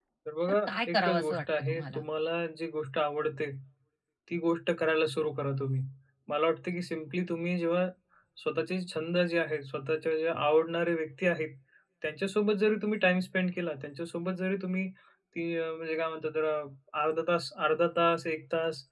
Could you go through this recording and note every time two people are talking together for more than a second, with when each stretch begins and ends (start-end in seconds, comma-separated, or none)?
0.7-2.0